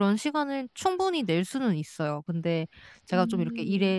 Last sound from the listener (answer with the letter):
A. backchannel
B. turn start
A